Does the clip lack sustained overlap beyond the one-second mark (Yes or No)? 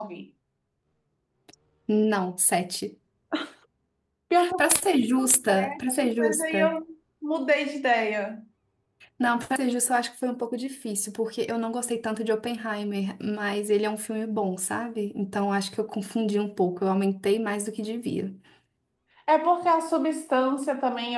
No